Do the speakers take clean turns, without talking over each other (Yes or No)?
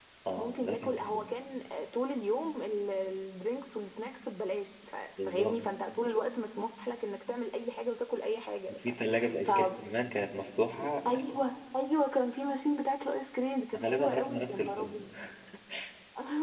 No